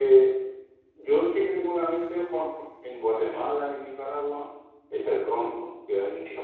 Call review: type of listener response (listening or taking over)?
listening